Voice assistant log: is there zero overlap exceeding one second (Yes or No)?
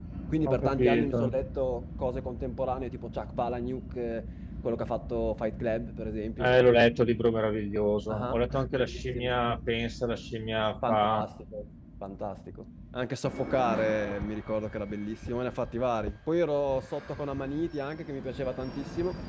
No